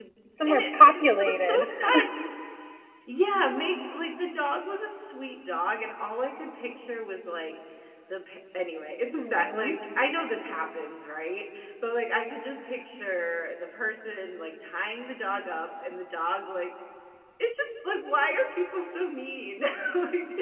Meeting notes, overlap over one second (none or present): present